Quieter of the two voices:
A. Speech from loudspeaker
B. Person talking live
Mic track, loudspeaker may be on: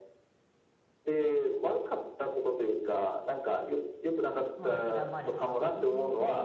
B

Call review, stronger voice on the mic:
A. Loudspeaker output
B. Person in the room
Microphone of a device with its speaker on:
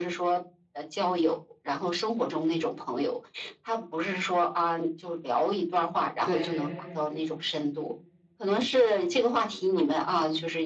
A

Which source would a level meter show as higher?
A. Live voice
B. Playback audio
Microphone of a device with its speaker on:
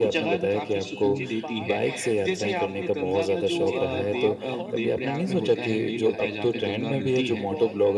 B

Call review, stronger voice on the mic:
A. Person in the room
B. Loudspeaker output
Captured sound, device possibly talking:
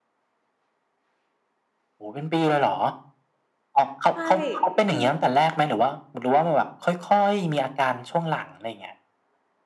B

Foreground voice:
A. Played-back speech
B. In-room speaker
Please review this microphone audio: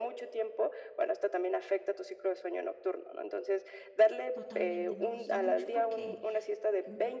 A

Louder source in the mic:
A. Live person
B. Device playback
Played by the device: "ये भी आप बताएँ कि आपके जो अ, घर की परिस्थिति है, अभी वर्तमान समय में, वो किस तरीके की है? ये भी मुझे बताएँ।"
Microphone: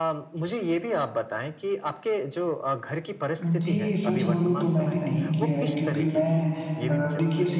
A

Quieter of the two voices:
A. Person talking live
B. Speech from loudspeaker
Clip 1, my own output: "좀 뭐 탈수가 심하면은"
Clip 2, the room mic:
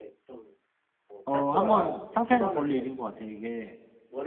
B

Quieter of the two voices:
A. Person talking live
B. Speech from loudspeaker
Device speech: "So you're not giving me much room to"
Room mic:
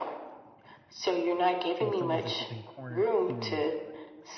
A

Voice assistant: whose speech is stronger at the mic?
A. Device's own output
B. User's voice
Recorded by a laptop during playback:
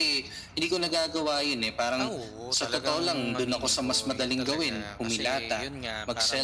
A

